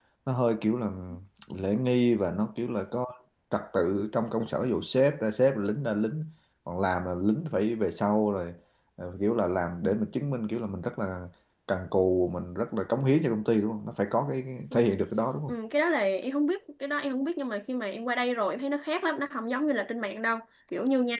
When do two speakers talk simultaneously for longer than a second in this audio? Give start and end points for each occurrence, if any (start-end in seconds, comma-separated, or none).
none